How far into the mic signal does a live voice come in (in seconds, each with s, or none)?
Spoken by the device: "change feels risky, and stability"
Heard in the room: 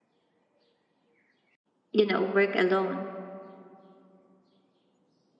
1.9 s